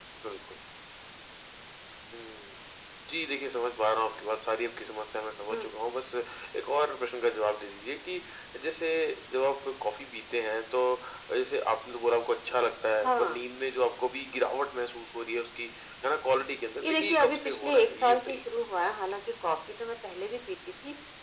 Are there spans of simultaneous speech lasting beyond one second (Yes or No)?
Yes